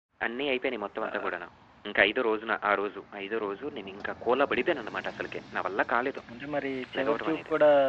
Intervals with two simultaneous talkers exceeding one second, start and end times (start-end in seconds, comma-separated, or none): none